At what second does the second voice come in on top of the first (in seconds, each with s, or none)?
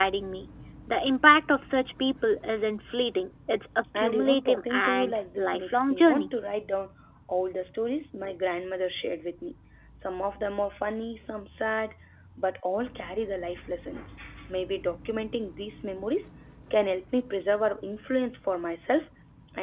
3.9 s